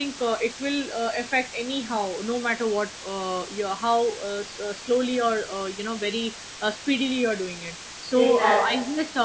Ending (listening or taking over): listening